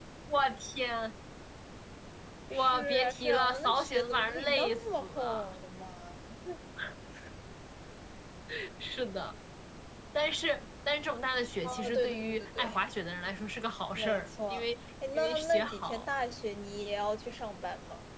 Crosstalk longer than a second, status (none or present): present